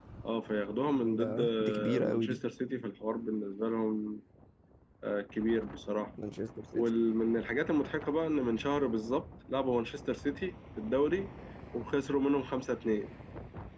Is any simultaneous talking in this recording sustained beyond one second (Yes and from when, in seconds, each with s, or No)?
Yes, from 0.9 s